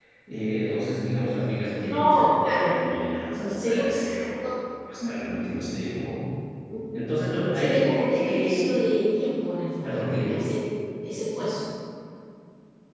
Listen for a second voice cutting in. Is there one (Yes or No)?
Yes